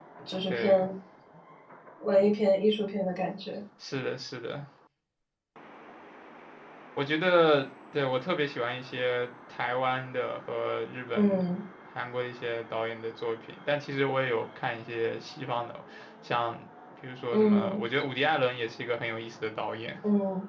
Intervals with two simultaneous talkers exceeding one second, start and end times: none

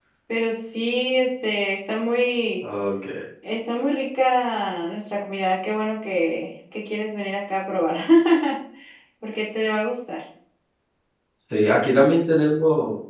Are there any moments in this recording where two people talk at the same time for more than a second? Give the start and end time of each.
none

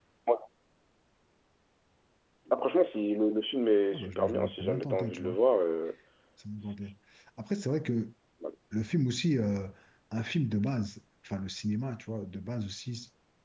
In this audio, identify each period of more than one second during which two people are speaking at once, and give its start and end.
3.9-5.4

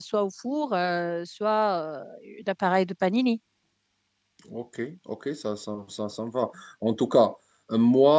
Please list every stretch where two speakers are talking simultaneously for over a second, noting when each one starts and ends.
none

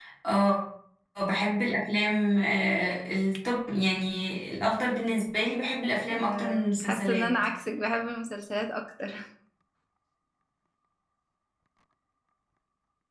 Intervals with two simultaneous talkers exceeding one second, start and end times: 6.1-7.3

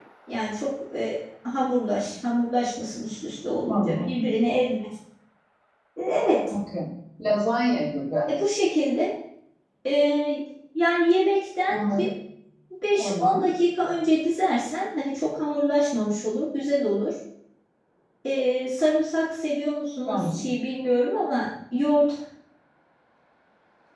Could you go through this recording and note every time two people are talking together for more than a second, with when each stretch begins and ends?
none

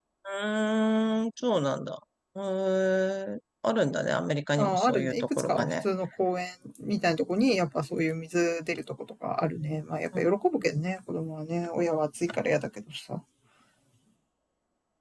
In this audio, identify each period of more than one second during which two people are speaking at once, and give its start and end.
4.6-5.8

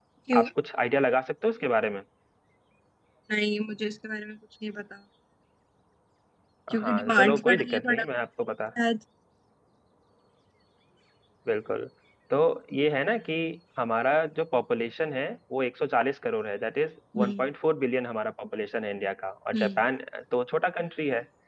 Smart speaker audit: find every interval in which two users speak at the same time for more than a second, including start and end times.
6.8-8.1

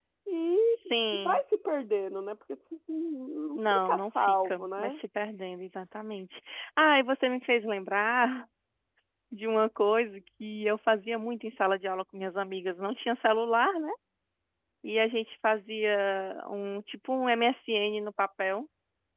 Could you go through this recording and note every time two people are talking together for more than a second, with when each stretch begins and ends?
3.5-4.9

